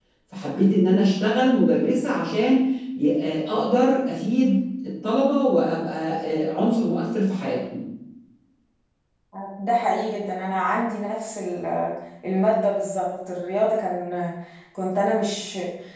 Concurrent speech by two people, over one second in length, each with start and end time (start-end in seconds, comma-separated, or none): none